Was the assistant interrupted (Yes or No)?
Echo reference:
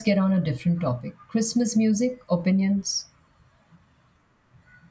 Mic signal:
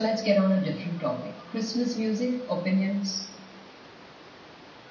No